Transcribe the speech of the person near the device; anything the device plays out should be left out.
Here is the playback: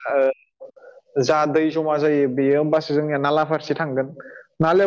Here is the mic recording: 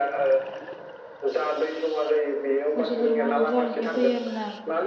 मोसौ बोरमा होनोबबो जागा गैया जायो आरो ना

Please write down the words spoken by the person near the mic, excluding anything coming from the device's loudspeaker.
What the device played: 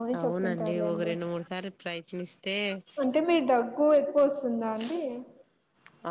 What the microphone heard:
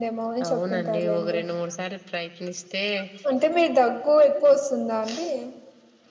none

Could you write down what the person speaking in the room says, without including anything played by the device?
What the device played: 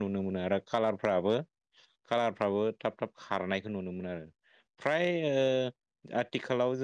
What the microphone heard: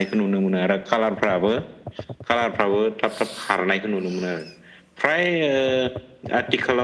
none

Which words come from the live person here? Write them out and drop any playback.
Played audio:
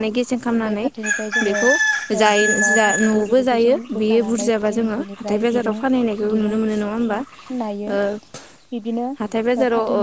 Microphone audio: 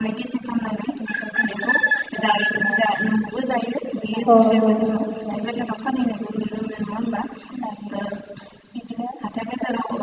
औ नंगौ

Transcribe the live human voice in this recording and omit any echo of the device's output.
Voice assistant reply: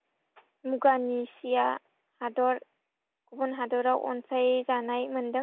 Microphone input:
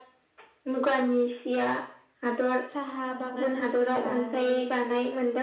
साहा बागानफोरखौ लानानै

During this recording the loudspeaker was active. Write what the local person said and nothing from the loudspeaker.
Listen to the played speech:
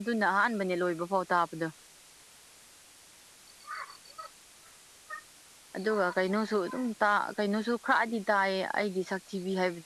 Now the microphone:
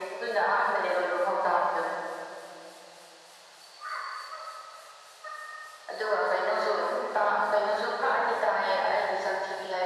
none

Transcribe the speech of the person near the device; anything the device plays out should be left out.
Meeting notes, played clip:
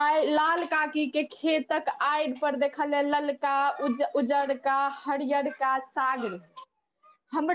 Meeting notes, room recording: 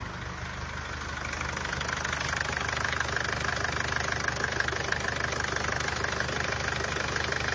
none

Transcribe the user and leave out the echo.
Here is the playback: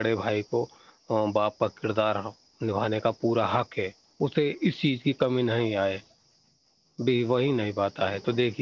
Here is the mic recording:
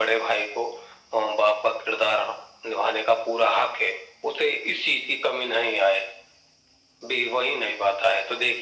none

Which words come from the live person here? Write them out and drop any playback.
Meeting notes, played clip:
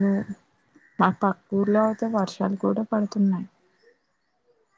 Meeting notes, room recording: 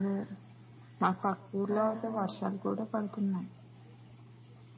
ఓహో

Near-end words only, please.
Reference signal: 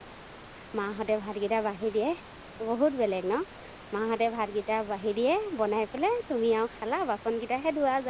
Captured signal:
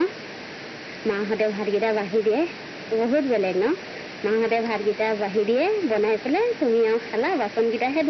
none

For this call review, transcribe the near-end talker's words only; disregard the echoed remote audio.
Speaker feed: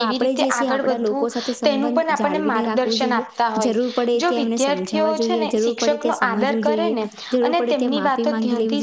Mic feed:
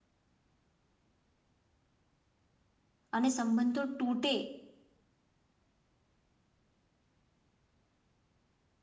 અને સંબંધો તૂટે

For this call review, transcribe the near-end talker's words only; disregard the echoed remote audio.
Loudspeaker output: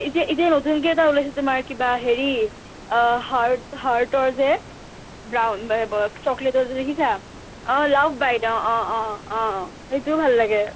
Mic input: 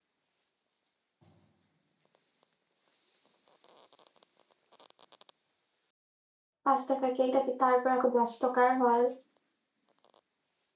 পাঁচ টকাৰ কেক আছে, তাৰপৰা আকৌ দহ টকাৰ হল।

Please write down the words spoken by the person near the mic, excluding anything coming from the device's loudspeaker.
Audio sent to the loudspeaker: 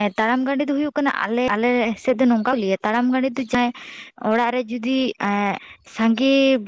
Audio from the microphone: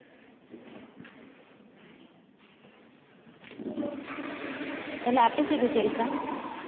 ᱛᱟᱦᱚᱞᱮ ᱟᱯᱮ ᱥᱮᱫ ᱫᱚ ᱪᱮᱞᱠᱟ?

